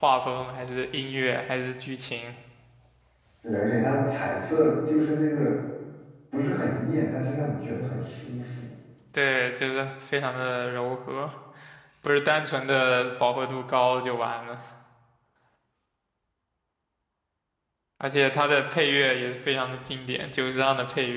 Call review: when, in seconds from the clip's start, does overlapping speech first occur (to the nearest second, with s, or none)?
none